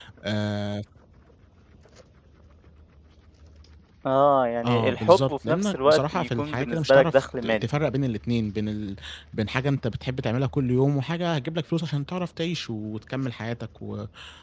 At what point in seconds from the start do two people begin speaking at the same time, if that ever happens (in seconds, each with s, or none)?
4.6 s